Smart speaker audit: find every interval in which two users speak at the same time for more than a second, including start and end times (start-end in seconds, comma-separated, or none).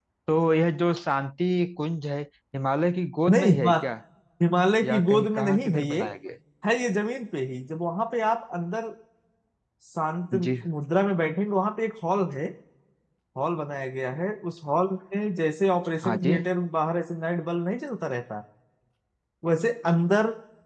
4.8-6.1